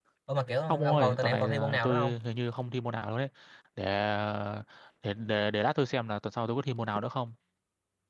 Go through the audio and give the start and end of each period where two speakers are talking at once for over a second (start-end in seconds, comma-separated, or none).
0.7-2.1